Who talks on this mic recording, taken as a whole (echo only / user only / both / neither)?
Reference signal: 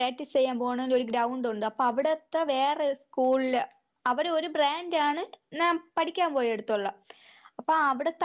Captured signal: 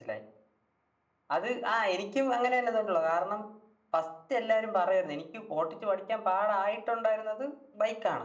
user only